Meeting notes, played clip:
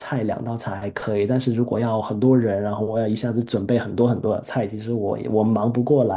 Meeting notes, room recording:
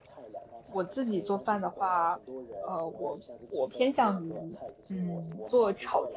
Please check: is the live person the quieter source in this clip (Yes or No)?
No